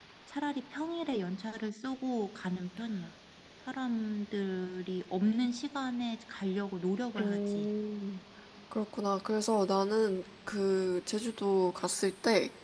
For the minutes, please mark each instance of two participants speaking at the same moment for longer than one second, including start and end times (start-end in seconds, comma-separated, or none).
none